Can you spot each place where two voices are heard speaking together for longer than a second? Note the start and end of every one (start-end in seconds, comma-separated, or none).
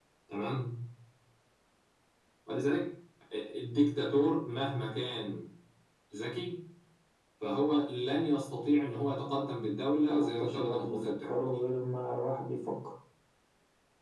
10.1-11.3